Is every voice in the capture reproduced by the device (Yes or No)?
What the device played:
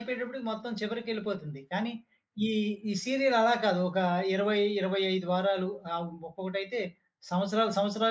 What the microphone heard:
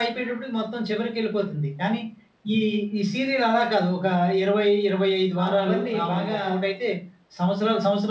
No